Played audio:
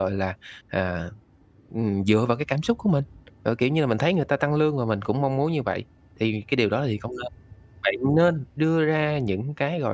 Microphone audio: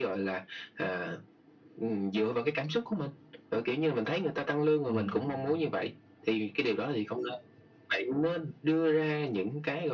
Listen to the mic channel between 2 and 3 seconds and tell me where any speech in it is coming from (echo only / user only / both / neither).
echo only